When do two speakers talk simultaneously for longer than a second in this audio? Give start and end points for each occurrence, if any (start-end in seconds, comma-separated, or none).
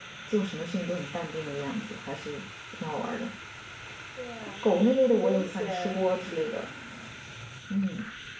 4.4-6.0